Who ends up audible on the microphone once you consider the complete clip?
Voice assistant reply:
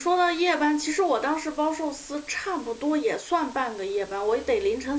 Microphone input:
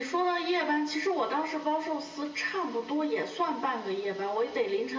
echo only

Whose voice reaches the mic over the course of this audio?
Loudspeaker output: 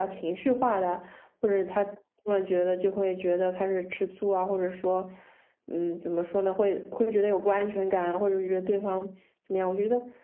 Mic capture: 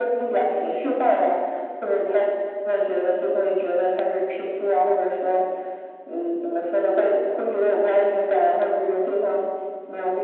echo only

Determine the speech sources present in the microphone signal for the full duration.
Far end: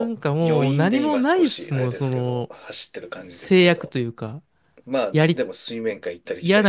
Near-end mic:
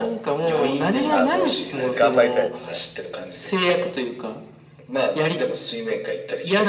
both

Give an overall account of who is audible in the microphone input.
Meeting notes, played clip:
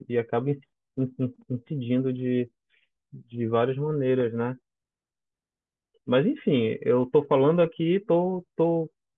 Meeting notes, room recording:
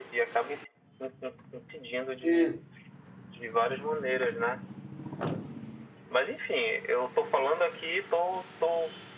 both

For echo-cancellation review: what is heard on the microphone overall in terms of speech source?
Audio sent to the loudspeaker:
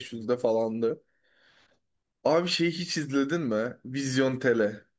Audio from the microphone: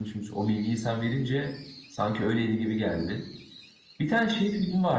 user only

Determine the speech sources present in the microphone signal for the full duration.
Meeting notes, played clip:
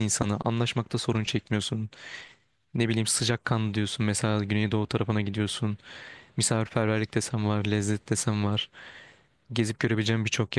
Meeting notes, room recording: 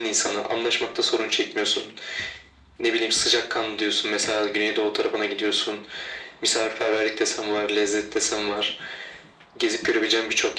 echo only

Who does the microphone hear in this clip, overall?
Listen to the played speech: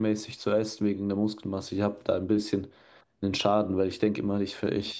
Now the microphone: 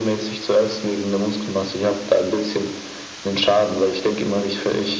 echo only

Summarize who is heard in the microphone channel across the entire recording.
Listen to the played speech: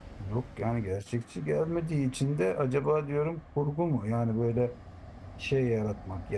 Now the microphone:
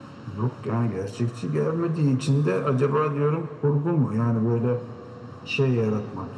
echo only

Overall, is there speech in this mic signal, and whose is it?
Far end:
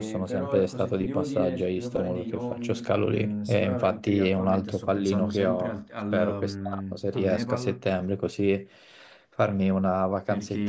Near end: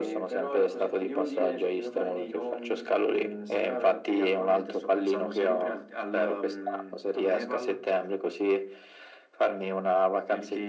echo only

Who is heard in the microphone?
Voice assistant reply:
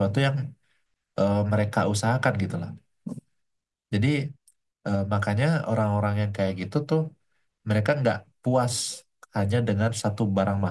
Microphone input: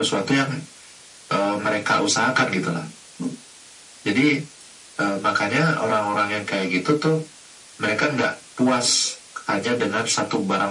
echo only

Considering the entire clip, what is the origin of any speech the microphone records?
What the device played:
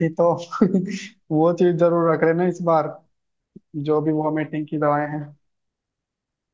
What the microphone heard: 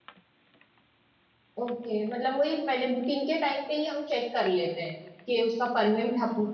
user only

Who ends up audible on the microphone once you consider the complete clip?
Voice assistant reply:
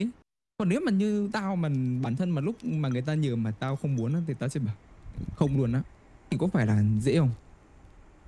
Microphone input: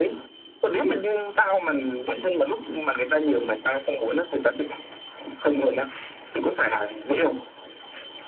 echo only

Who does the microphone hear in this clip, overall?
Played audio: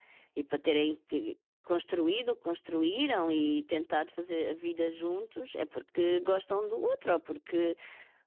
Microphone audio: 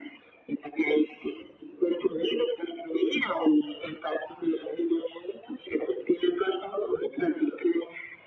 echo only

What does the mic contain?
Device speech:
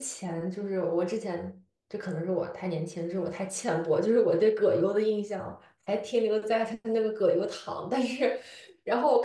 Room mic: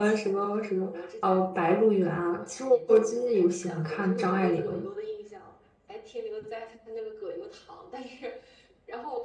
both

